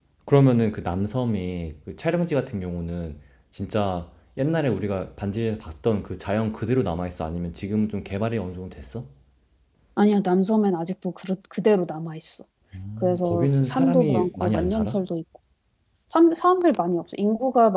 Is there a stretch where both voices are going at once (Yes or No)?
Yes